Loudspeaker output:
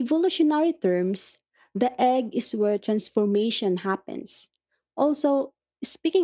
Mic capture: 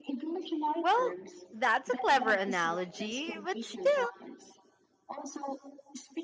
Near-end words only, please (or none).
Well, that's a clever analogy, but still,